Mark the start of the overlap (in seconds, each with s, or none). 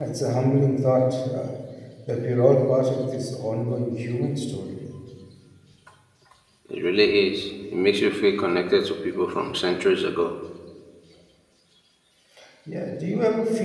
none